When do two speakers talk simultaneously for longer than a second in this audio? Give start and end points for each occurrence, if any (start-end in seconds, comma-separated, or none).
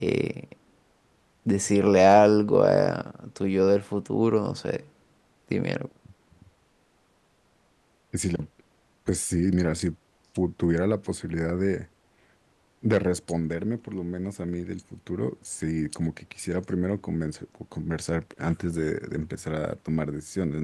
none